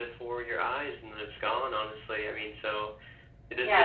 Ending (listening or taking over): taking over